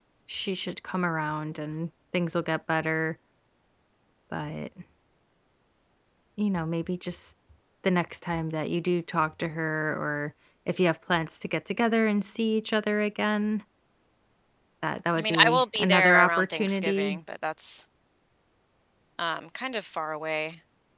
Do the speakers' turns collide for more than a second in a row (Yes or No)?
Yes